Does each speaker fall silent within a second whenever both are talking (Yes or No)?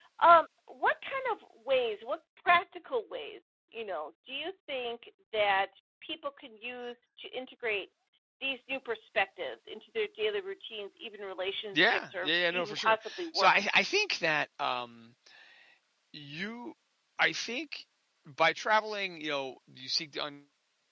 No